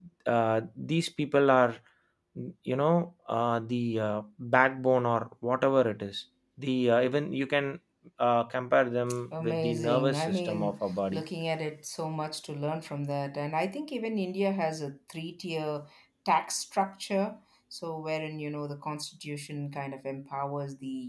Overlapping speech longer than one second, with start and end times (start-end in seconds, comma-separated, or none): 9.4-11.2